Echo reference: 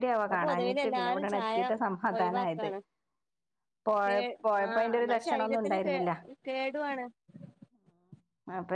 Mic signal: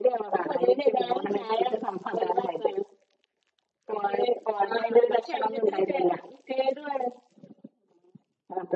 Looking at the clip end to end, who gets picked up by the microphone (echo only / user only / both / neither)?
echo only